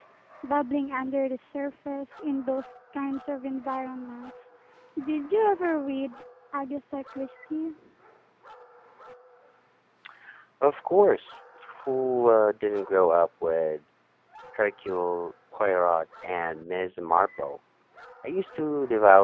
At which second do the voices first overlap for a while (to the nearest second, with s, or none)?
none